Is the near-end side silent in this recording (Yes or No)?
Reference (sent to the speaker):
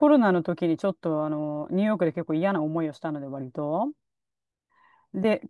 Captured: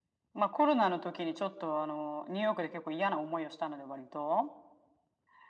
Yes